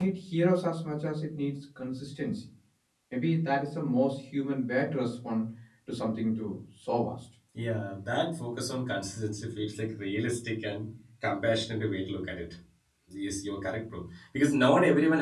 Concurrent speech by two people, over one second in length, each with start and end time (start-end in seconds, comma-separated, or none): none